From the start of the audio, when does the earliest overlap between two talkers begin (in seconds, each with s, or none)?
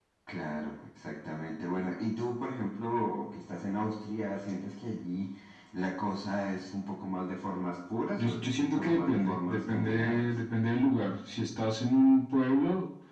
8.2 s